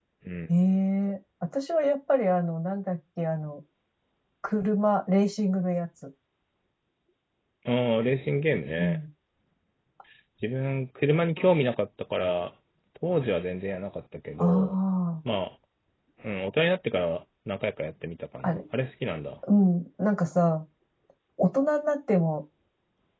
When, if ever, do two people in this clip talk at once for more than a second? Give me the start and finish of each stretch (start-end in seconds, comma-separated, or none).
none